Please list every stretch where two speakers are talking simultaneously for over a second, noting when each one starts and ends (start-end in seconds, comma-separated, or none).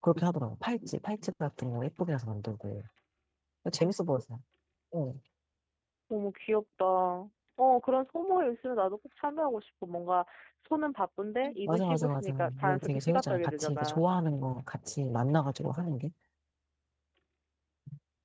11.7-14.0